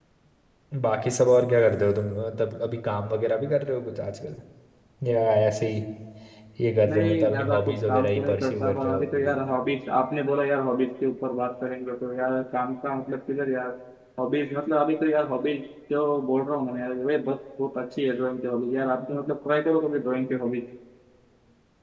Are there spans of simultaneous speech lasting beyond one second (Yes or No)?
Yes